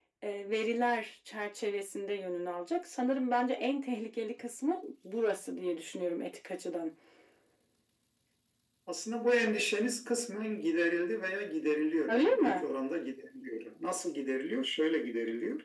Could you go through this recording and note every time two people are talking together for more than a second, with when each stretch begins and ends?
none

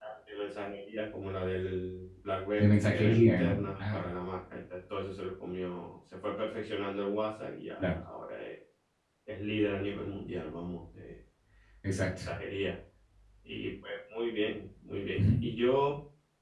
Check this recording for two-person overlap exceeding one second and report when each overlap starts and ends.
2.6-4.0

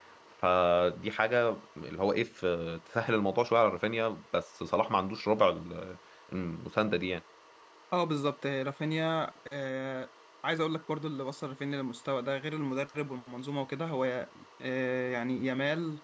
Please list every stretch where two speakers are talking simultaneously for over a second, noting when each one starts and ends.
none

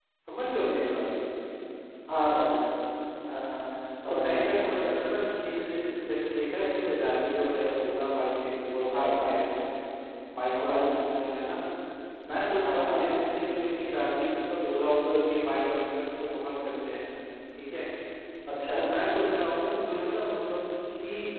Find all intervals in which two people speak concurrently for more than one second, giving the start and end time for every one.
none

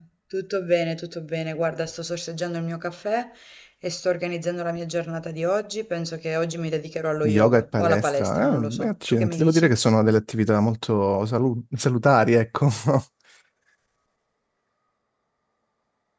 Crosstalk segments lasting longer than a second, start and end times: 7.2-9.7

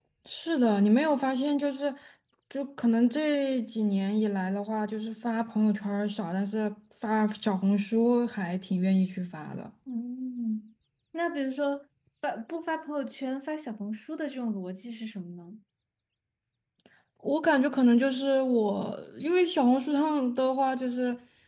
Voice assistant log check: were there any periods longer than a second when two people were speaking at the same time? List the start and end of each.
none

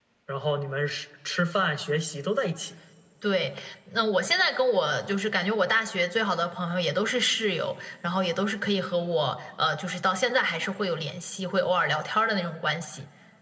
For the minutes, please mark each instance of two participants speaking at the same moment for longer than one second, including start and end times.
none

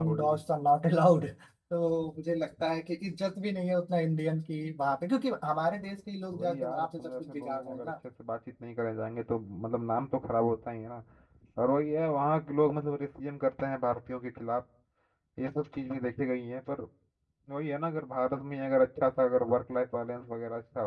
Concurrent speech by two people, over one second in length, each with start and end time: 6.3-7.9

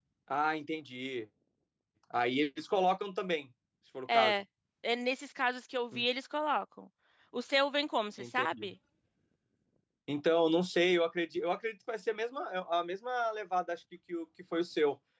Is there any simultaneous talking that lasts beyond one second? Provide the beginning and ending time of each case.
none

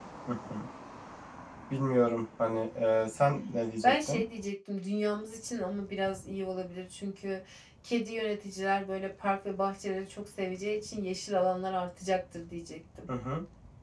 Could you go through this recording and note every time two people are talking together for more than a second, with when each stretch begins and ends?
none

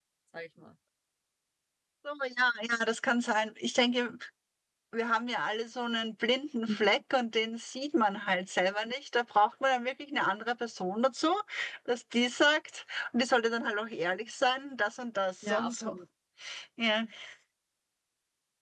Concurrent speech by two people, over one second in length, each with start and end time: none

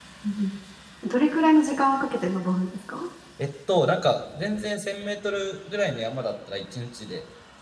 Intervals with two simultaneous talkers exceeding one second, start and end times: none

